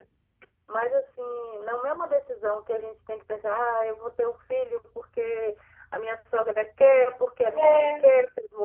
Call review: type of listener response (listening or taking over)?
listening